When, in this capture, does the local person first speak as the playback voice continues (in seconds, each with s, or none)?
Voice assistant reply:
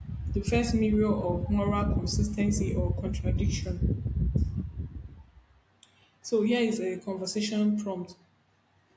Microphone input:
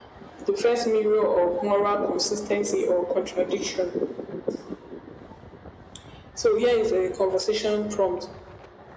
none